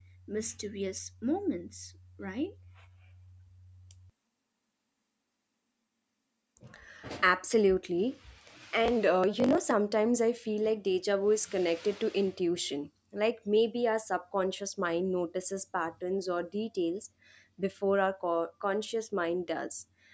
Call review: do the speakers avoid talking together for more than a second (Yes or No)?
Yes